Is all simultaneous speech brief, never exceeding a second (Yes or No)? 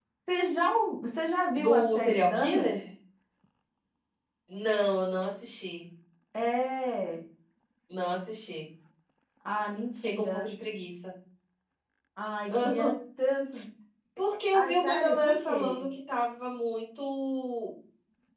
No